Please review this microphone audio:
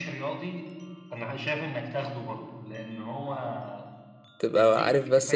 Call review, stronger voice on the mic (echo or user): user